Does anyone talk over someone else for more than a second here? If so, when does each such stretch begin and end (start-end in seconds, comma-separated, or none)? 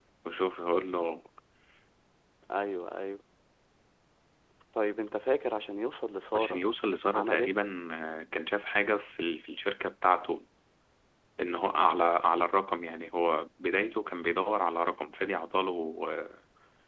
none